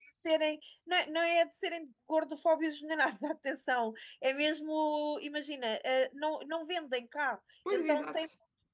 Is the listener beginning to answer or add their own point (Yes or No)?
No